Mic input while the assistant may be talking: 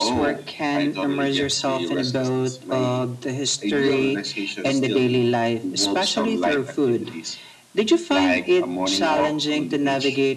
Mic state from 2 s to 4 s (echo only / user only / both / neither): echo only